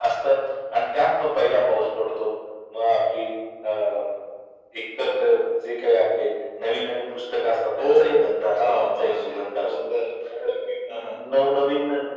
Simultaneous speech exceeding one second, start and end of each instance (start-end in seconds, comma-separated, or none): 8.7-9.9